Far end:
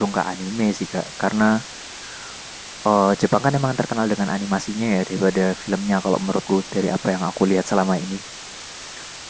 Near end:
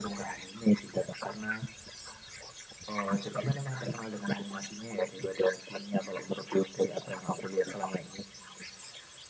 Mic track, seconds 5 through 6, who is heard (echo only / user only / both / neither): echo only